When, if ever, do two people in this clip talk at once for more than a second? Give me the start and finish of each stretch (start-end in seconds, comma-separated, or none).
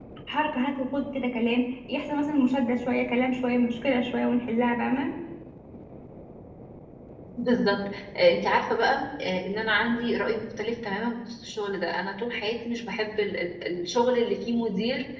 none